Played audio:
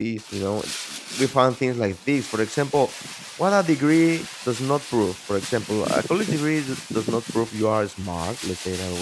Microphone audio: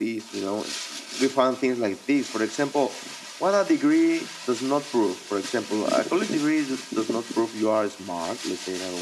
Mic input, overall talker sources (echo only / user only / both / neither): echo only